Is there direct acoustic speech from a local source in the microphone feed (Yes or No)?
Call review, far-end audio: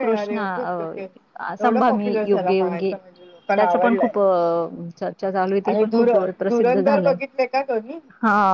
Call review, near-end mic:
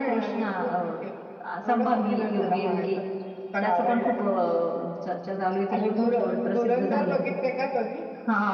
No